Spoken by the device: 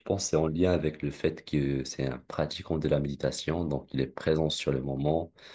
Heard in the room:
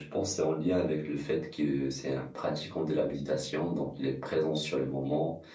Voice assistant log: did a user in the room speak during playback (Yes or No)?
No